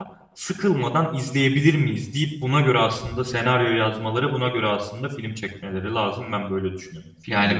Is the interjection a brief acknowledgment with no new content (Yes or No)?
No